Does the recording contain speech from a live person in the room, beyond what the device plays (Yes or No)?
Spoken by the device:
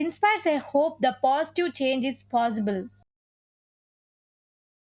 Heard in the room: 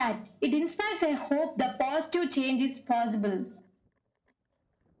No